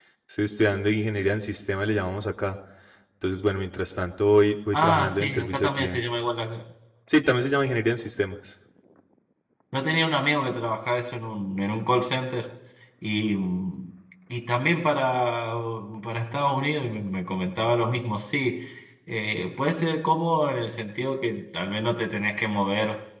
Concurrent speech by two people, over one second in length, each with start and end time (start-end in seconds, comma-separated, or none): 4.7-6.0